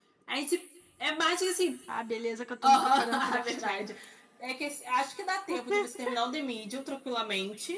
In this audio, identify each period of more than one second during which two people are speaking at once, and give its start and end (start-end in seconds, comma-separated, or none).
2.6-3.9